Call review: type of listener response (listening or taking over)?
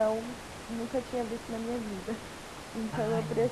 listening